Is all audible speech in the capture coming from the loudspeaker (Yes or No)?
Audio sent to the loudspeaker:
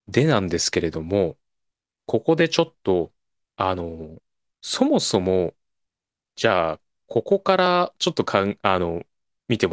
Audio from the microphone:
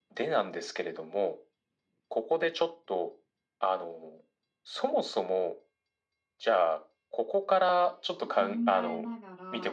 No